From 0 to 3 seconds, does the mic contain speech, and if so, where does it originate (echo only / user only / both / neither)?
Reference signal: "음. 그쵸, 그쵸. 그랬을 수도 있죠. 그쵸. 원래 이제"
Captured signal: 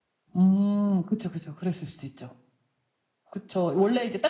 echo only